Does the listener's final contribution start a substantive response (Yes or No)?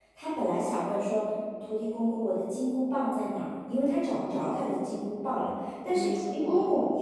No